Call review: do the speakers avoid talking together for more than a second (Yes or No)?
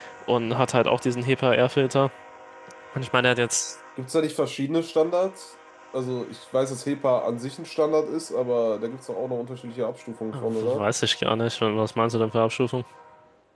Yes